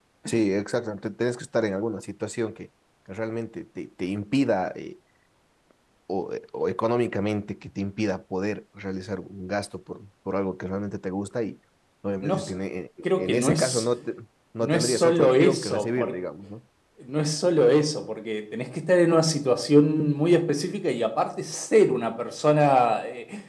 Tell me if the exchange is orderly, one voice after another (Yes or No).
No